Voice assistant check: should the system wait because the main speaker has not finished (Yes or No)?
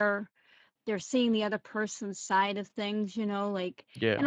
Yes